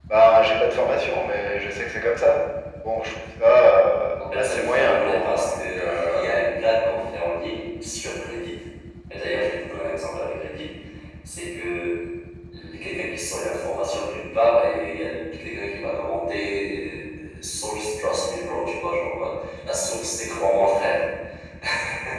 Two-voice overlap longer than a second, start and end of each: 4.4-6.3

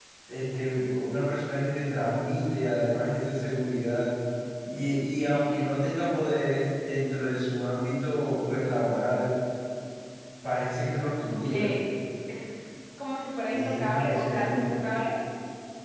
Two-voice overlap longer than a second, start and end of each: 13.5-14.7

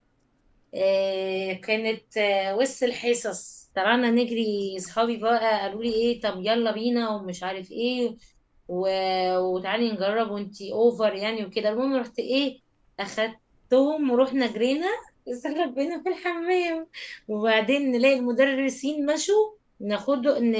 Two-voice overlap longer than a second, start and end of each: none

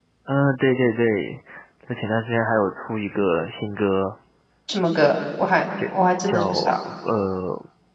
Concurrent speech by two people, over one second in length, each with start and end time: none

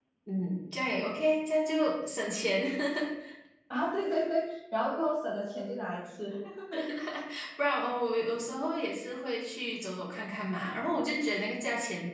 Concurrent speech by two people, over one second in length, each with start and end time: none

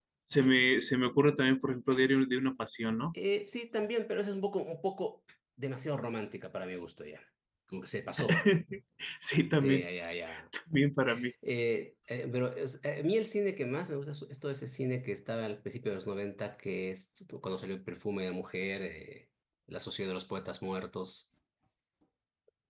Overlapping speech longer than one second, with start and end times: none

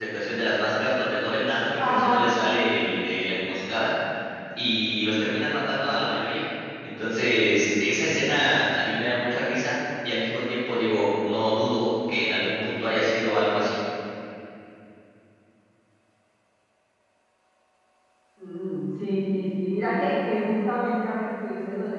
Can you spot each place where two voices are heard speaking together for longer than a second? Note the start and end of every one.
none

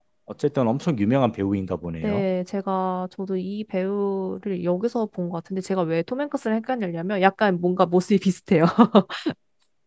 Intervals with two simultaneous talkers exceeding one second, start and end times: none

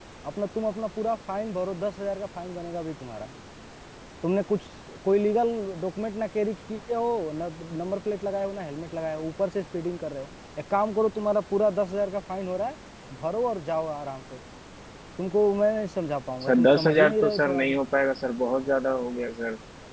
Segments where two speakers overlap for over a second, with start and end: 16.4-17.8

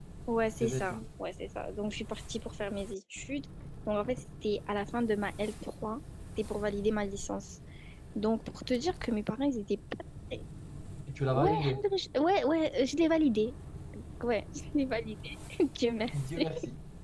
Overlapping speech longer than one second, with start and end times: none

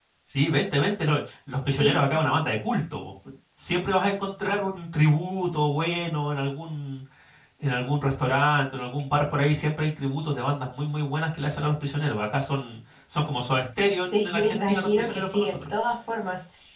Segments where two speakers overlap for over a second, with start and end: 14.1-15.6

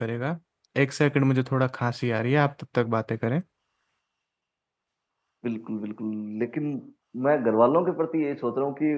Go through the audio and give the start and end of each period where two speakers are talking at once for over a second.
none

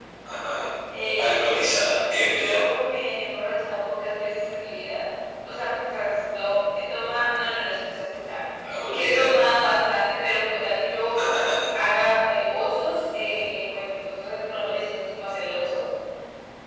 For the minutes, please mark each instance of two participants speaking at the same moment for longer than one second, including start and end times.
1.2-2.6

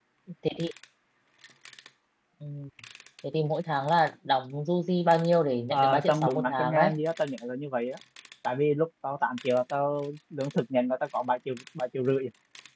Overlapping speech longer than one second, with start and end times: 5.7-6.9

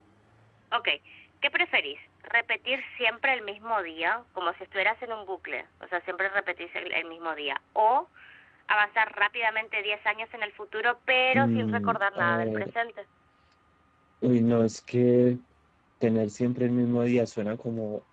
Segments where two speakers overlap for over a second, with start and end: 11.3-12.7

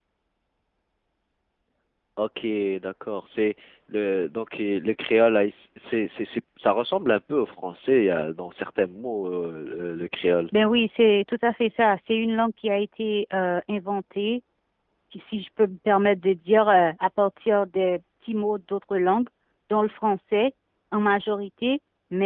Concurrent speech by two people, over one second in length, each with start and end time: none

